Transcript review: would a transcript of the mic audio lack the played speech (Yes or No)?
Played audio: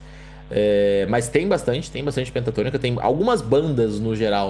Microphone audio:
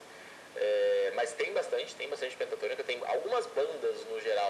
No